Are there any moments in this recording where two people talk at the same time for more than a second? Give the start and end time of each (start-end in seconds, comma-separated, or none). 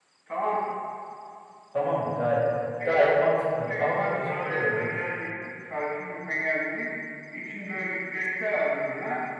3.6-4.9